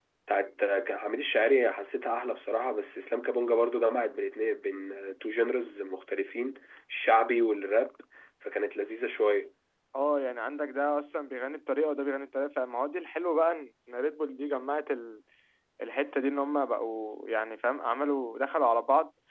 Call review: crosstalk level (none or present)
none